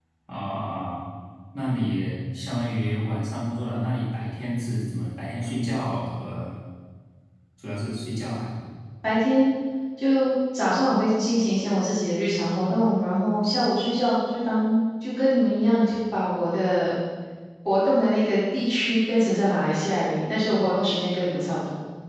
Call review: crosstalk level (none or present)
none